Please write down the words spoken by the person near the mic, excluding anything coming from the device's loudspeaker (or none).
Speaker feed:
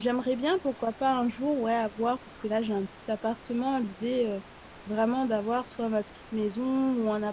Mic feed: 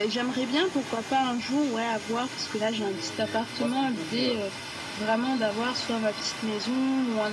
Tu, tu vois ce que je veux dire?